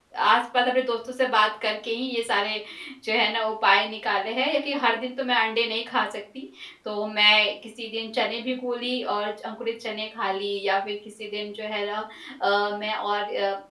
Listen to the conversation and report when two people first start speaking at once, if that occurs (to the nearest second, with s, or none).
none